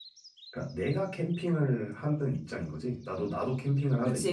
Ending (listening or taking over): taking over